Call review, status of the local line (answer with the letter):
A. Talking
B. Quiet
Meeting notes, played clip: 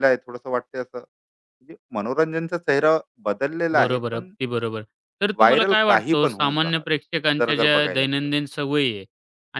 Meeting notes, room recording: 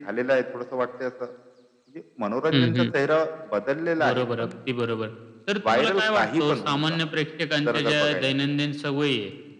A